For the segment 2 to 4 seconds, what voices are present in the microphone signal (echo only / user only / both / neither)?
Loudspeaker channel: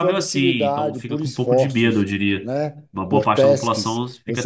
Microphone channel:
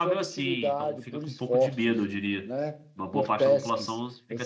echo only